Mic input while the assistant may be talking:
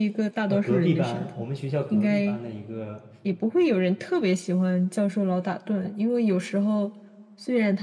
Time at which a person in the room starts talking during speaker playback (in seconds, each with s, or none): 0.5 s